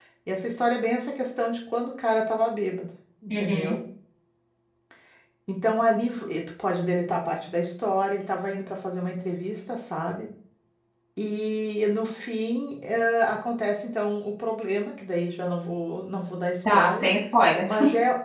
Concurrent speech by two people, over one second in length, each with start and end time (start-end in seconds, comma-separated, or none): none